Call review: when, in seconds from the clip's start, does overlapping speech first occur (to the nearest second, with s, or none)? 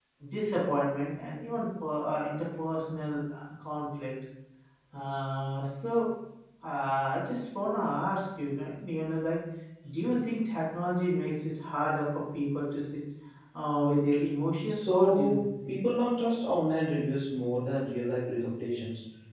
15 s